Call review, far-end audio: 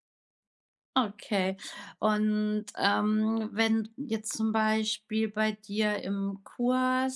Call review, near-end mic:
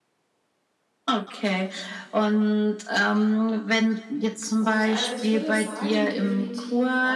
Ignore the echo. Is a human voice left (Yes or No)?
Yes